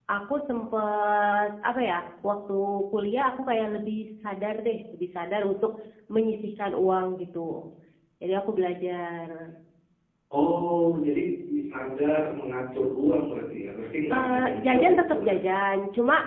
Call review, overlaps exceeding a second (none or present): present